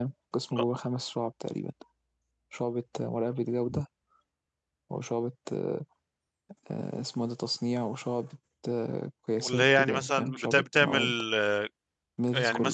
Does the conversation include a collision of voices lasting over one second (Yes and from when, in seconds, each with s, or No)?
Yes, from 9.5 s